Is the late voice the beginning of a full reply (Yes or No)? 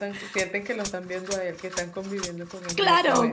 Yes